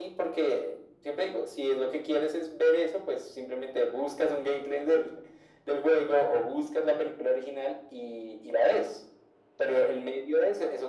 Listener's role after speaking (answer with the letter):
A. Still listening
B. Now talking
A